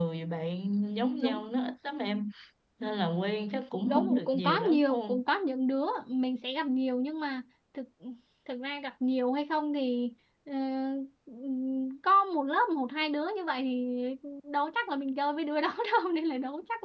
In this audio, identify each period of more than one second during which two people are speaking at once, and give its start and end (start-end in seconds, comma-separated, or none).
3.9-5.2